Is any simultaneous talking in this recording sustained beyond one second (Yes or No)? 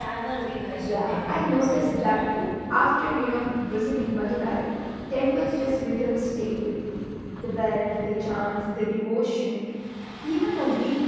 Yes